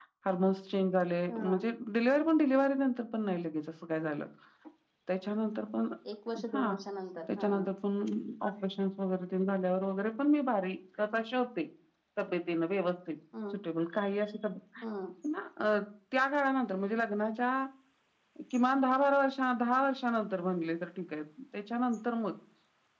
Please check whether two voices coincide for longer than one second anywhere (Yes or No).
No